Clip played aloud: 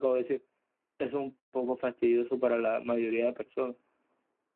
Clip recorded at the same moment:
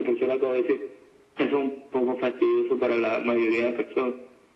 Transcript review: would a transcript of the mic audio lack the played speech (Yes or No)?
No